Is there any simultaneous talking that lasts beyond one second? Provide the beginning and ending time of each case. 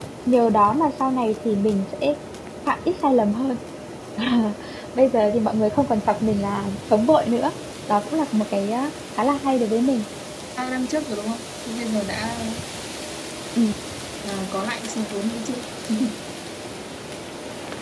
none

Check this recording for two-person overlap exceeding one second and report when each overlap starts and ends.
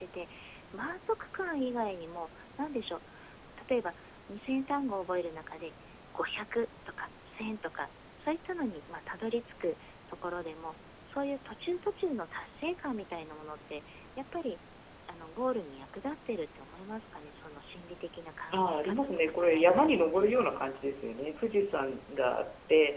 18.5-20.7

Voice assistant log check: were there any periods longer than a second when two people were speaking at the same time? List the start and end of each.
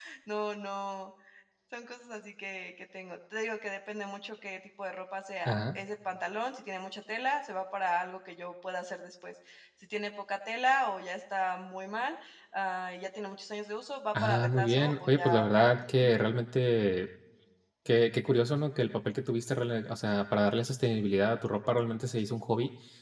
14.2-16.2

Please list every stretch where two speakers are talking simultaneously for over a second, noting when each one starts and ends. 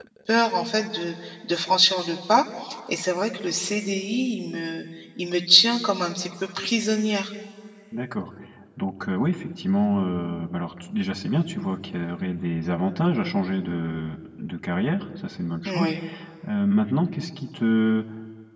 none

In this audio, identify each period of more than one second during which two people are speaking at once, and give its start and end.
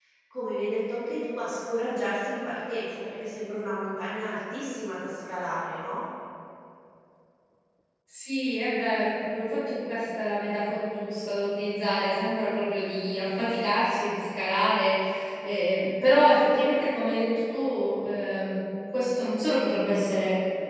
none

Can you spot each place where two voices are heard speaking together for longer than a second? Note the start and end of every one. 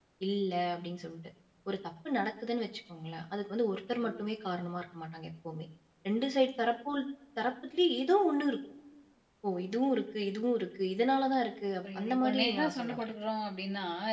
11.8-13.1

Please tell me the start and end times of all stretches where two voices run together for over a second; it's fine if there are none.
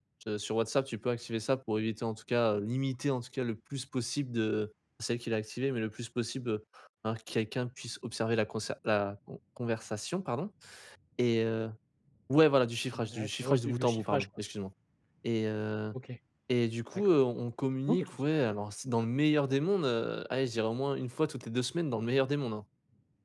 12.9-14.2

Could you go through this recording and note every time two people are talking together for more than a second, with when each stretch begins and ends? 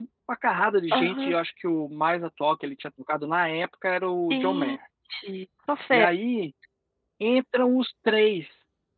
none

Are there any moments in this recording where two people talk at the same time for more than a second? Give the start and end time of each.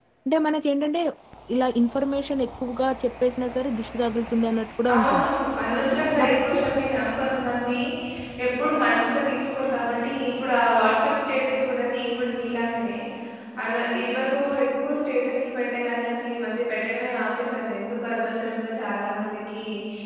none

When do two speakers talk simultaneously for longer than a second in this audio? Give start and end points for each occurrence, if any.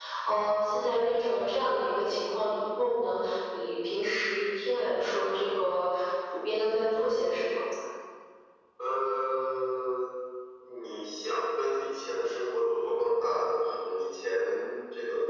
none

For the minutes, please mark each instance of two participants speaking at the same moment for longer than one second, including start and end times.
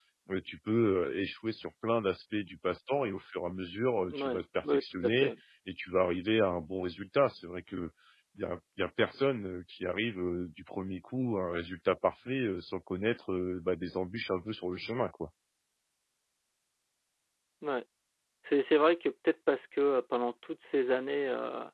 4.1-5.3

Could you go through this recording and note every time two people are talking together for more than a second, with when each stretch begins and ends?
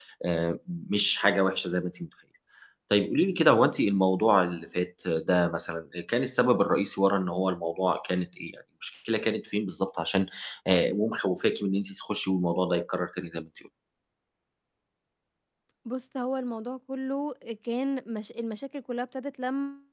none

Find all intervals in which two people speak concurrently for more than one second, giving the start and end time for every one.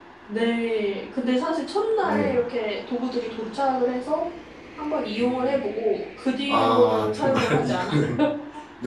6.5-8.0

